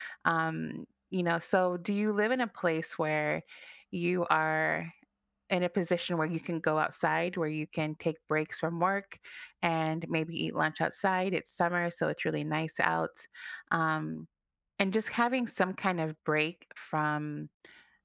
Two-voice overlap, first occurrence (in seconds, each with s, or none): none